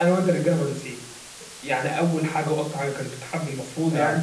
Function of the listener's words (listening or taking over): listening